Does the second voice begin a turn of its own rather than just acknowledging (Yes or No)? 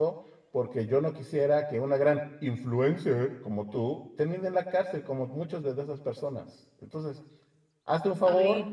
Yes